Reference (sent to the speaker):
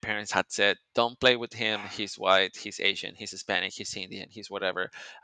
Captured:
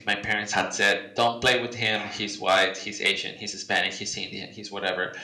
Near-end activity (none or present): none